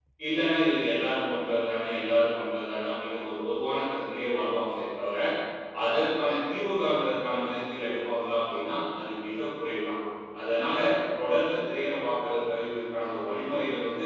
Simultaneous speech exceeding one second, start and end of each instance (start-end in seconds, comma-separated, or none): none